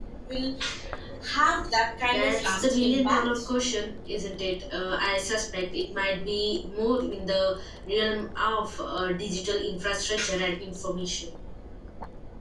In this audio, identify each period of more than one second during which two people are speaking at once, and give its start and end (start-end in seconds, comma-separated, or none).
2.0-3.4